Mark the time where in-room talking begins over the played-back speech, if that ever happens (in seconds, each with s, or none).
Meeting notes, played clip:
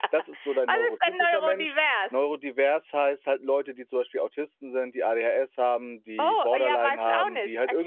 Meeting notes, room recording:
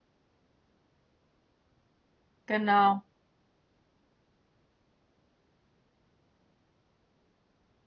2.5 s